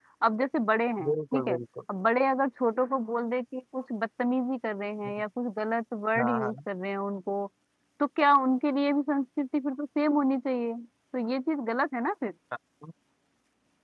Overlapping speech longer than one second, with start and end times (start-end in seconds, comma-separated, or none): none